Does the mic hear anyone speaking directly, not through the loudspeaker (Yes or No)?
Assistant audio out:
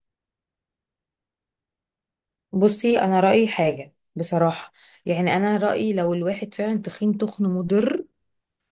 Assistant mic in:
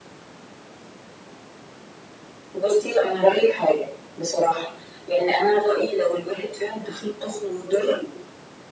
No